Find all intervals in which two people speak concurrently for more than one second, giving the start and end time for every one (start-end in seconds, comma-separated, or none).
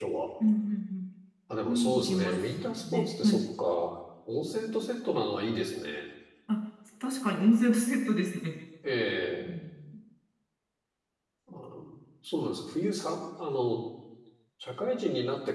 1.7-3.4